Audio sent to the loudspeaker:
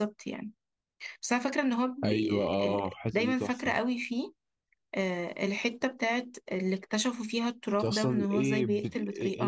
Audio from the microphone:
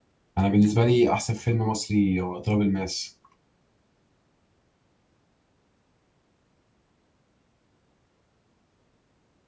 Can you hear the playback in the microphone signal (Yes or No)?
No